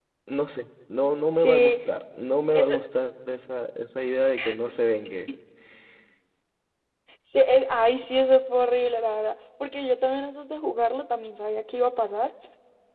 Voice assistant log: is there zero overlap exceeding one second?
Yes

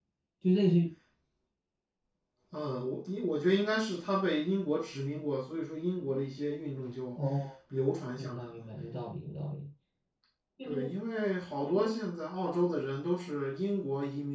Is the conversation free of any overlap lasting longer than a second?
Yes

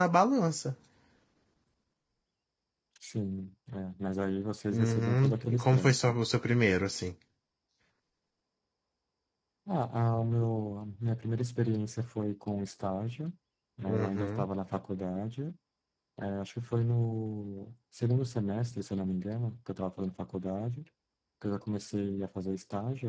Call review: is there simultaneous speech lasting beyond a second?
Yes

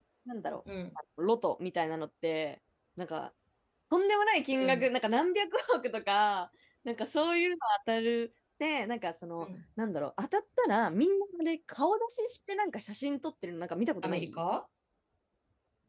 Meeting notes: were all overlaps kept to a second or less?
Yes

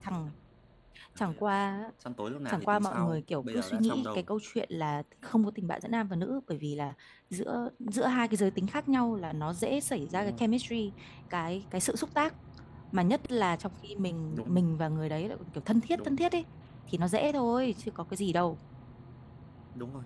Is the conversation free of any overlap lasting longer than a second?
No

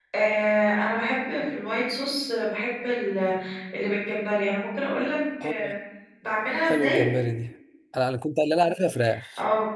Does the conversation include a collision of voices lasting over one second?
No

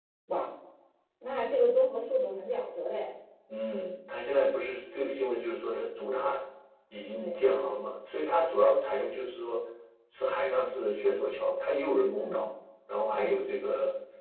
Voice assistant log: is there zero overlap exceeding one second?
Yes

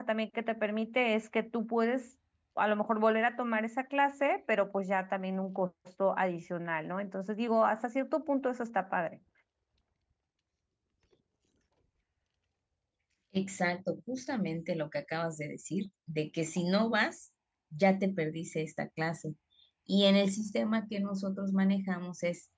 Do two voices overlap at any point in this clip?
No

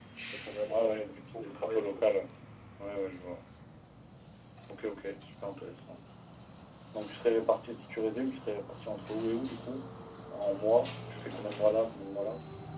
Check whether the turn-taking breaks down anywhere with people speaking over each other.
Yes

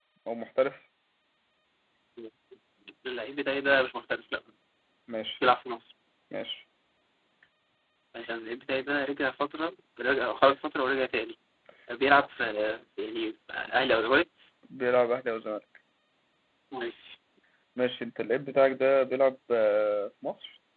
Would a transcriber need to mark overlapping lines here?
No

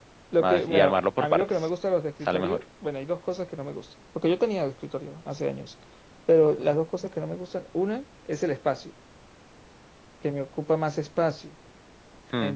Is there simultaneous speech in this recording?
Yes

